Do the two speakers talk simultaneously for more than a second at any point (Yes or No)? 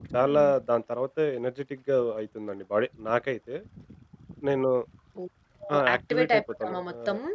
Yes